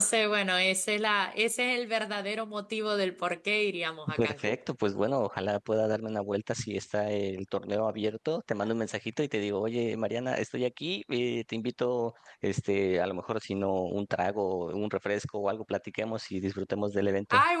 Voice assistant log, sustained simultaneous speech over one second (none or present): none